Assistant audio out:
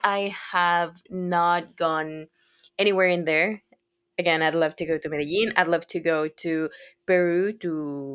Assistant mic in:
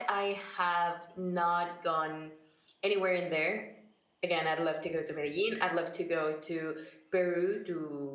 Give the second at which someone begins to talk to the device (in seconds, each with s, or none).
none